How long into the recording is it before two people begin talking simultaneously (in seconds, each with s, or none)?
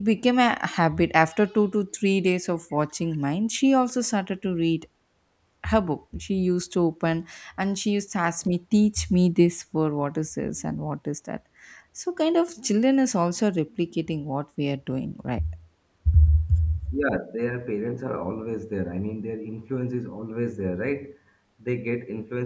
none